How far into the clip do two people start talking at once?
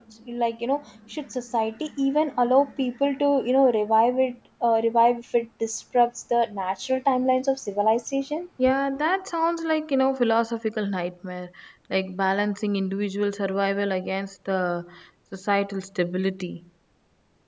none

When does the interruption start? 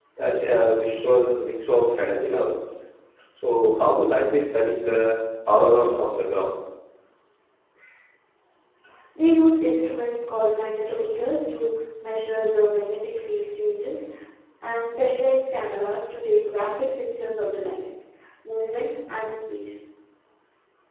none

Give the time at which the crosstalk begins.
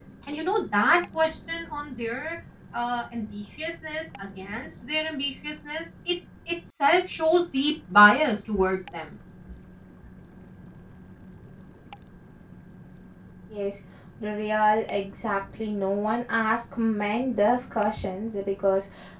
none

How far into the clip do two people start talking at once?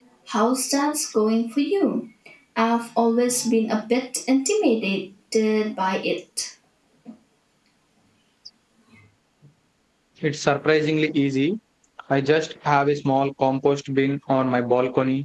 none

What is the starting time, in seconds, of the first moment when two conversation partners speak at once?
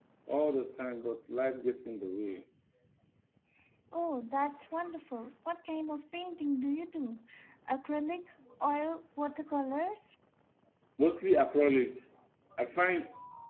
none

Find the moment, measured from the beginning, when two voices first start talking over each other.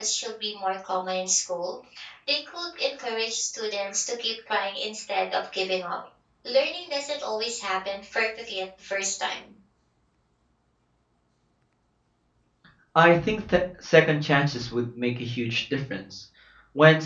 none

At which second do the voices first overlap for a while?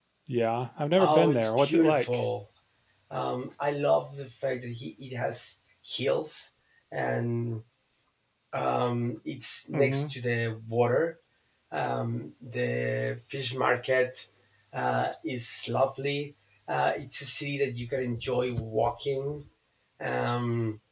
1 s

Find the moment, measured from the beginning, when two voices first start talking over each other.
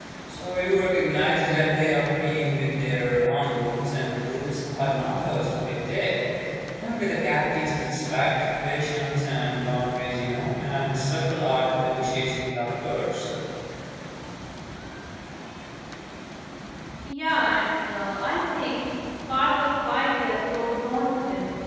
none

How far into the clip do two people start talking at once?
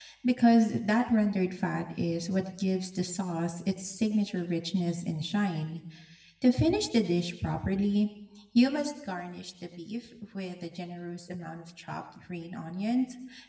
none

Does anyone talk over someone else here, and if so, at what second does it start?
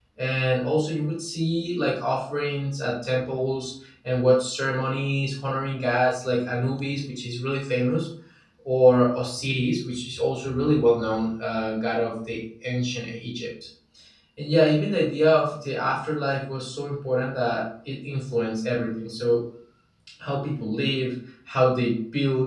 none

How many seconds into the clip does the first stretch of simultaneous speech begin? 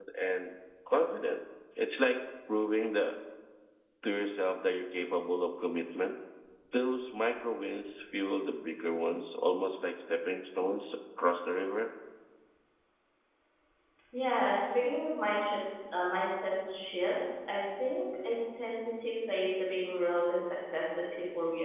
none

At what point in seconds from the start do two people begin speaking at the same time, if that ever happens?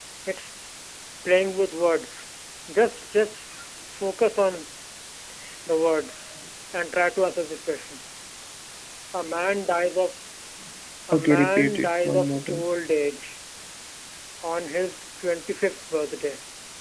11 s

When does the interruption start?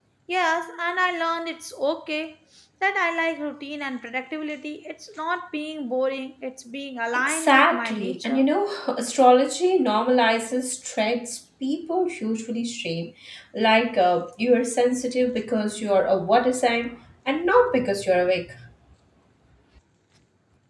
7 s

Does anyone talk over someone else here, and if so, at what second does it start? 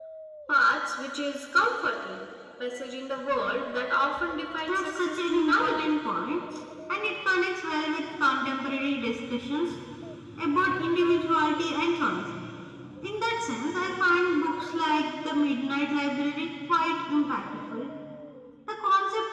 5 s

